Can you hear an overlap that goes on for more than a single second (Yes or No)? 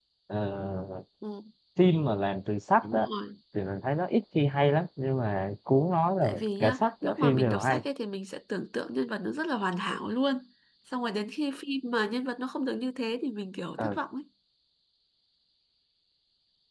Yes